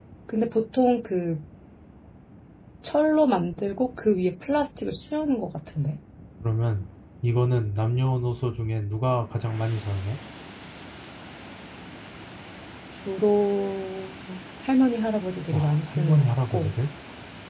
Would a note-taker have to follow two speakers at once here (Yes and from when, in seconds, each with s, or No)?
Yes, from 15.5 s